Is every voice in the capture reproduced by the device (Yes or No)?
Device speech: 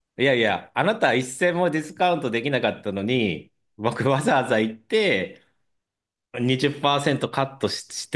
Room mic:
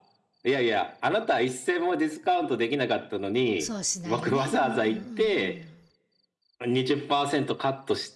No